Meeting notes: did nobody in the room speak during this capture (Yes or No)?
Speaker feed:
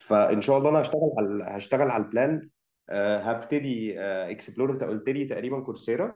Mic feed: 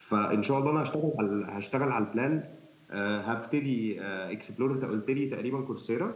Yes